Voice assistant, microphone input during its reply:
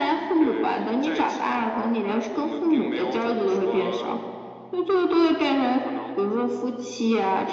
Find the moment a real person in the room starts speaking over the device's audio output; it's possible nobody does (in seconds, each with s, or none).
none